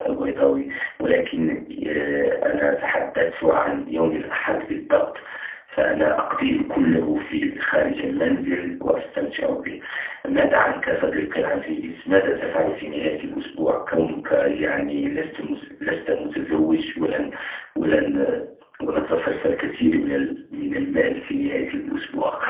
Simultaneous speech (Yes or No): No